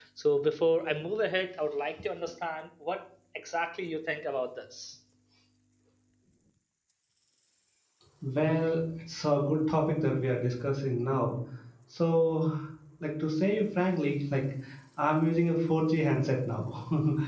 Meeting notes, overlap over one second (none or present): none